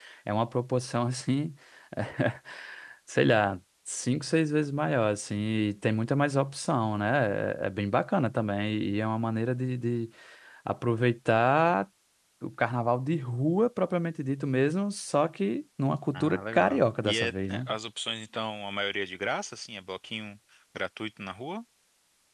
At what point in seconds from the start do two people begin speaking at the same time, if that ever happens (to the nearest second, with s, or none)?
16 s